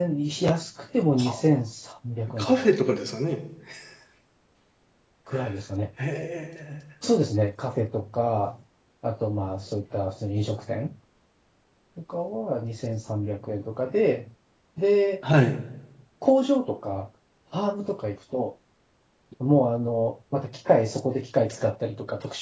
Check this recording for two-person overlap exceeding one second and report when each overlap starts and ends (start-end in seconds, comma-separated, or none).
none